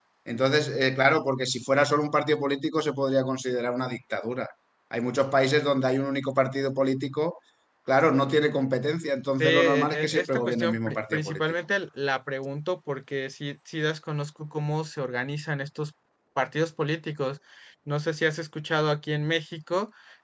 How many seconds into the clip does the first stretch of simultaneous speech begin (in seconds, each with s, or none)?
9.4 s